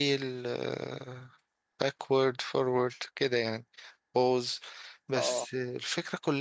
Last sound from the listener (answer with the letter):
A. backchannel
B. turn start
A